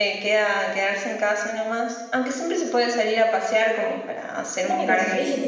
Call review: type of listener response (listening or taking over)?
taking over